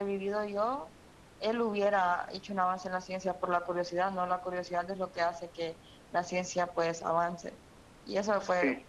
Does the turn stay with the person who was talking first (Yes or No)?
Yes